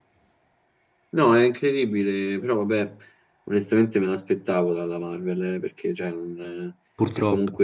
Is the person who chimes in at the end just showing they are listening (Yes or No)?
Yes